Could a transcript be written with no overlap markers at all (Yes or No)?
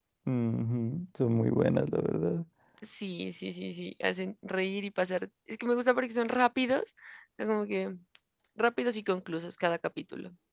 Yes